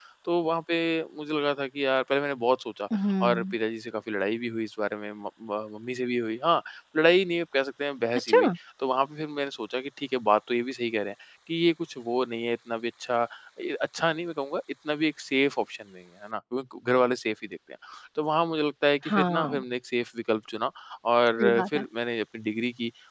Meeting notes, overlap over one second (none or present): none